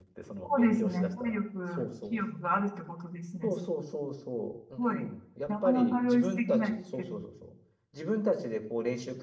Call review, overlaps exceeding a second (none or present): present